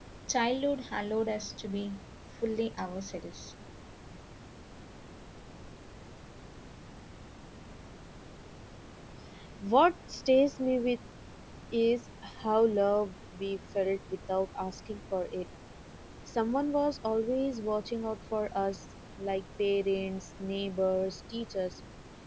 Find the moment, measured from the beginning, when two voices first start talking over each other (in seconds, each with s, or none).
none